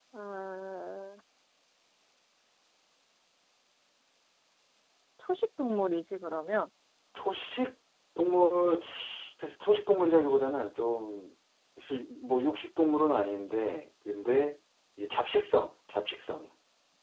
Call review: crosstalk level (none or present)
none